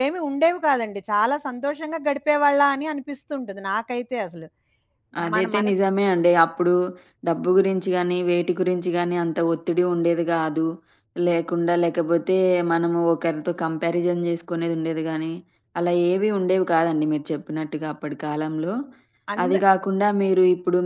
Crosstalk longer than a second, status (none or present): none